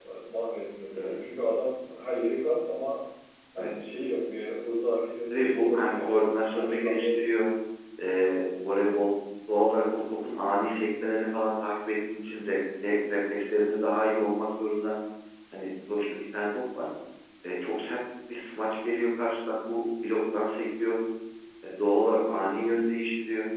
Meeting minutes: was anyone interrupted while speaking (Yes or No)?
Yes